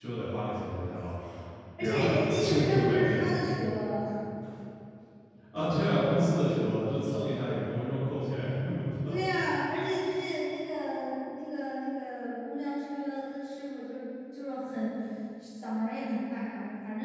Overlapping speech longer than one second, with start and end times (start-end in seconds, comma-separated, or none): 1.8-3.2